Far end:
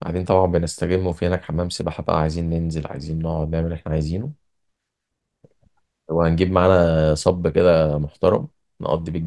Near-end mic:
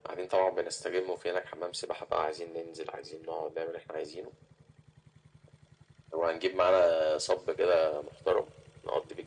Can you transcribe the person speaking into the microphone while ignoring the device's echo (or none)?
none